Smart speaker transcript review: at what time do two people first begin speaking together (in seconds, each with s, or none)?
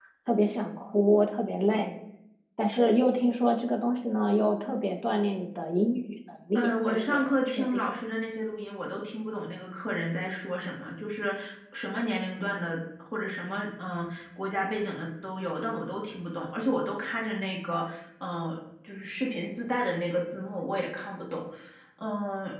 6.5 s